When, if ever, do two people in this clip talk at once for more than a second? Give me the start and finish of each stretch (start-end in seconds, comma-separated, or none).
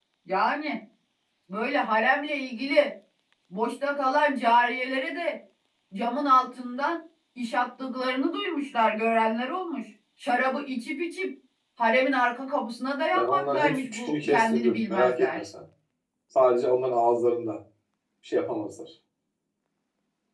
13.1-15.4